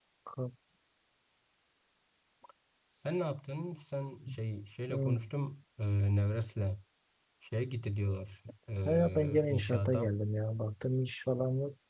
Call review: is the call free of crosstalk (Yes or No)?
No